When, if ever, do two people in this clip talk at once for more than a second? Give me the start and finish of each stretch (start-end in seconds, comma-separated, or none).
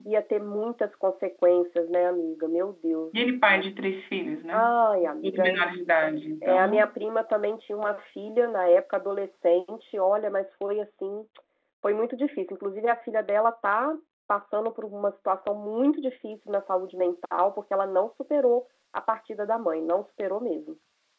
none